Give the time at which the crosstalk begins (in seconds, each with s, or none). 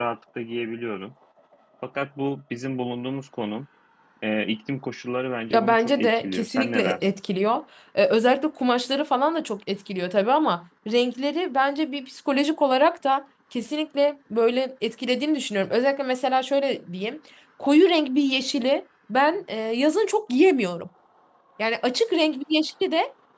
5.5 s